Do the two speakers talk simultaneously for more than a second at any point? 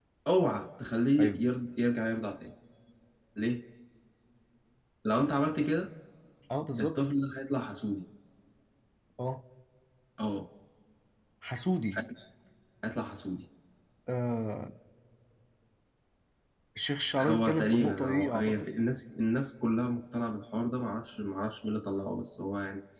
Yes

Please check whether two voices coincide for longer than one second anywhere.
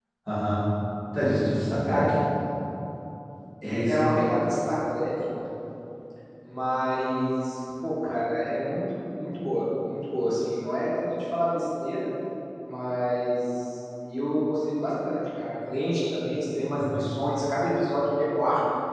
No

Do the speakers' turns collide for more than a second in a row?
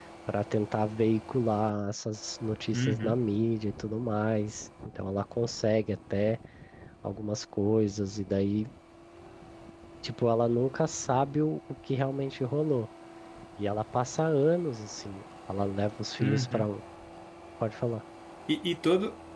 No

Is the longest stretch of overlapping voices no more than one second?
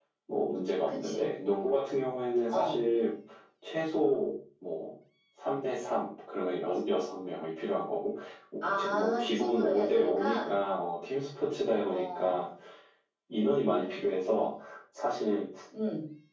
No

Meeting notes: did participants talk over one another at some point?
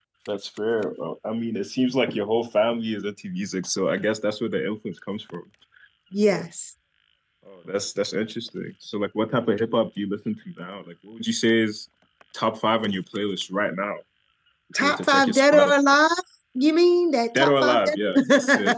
Yes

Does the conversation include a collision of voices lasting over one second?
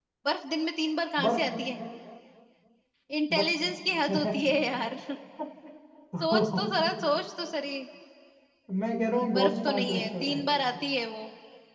Yes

